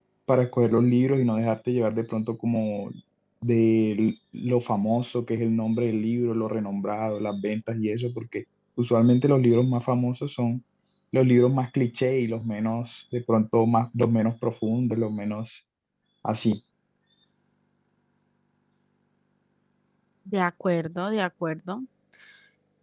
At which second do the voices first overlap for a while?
none

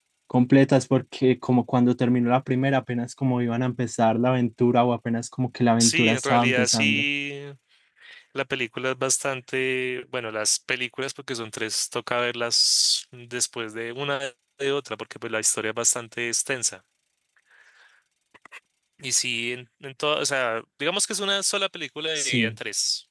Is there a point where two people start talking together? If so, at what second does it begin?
6 s

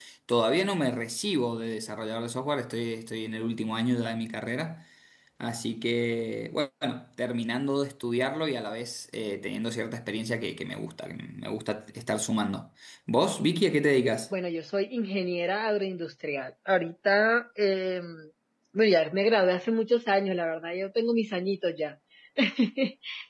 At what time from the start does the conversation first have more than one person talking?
none

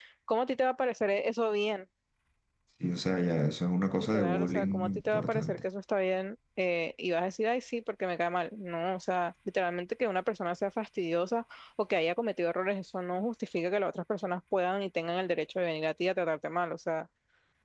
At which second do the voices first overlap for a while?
4 s

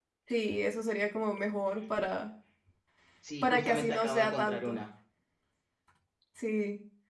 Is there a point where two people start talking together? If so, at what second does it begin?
3 s

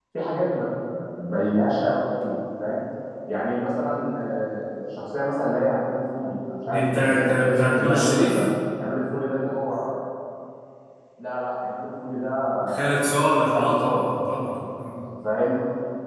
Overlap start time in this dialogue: 7 s

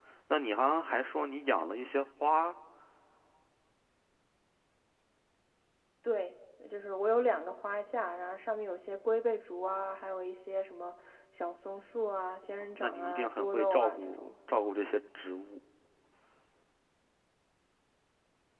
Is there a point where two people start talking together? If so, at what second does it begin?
13 s

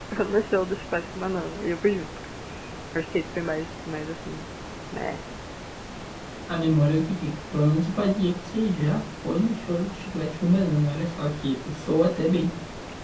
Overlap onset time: none

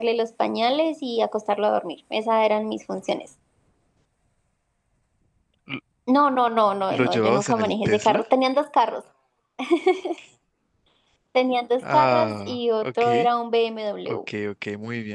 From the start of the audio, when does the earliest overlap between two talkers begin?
7 s

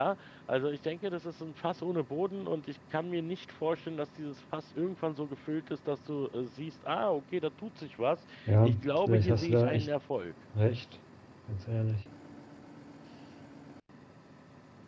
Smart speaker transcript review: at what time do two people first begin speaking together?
8 s

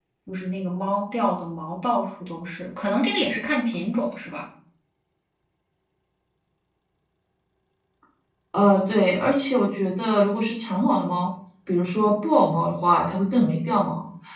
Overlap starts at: none

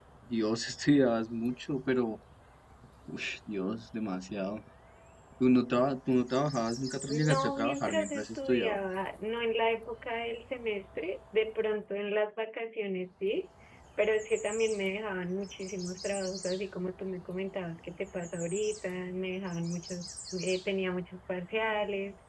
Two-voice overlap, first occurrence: 7 s

